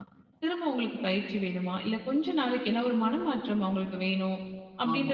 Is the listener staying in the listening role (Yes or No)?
Yes